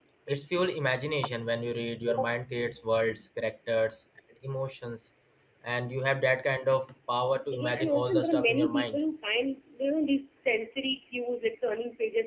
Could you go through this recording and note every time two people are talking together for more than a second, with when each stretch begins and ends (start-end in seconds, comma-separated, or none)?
7.5-9.0